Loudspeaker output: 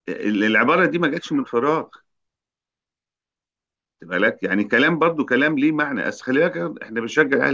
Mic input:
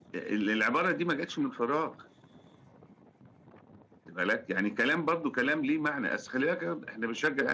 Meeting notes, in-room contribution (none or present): none